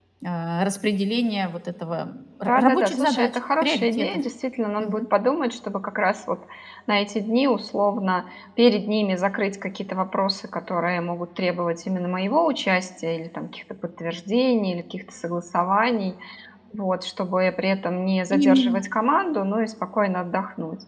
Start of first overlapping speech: 2.4 s

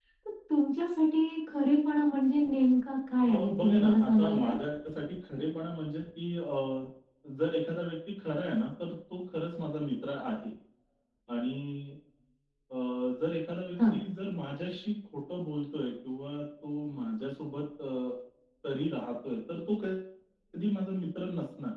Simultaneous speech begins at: 3.3 s

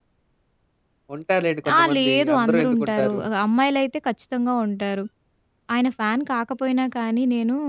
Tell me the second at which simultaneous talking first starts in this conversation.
1.8 s

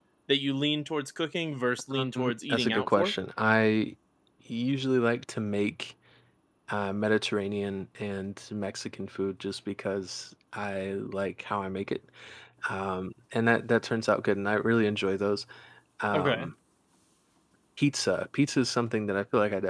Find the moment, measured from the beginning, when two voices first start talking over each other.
1.9 s

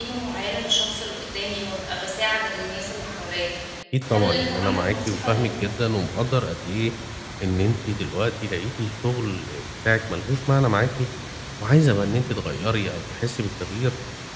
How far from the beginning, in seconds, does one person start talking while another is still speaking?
4.1 s

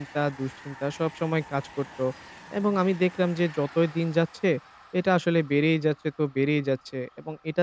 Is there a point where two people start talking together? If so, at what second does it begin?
none

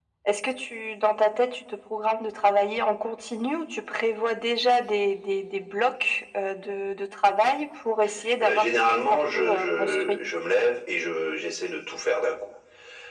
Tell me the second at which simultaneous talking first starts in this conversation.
8.4 s

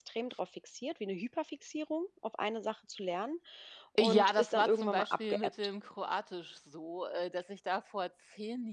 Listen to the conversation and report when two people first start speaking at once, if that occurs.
4.0 s

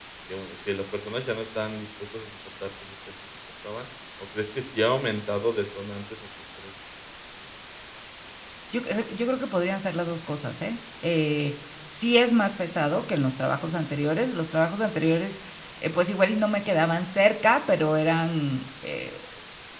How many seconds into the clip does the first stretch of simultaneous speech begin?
none

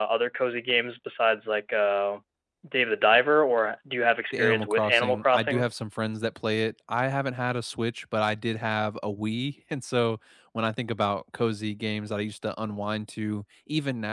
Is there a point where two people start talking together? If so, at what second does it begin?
4.3 s

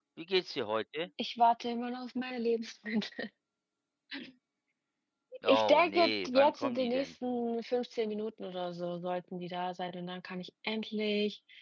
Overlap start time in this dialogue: 5.5 s

